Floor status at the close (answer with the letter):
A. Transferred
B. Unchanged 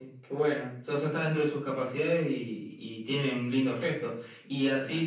B